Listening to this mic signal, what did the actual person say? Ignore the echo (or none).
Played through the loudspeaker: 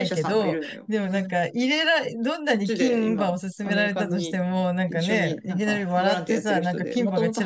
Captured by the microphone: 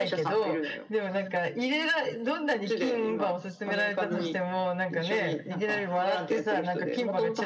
うん、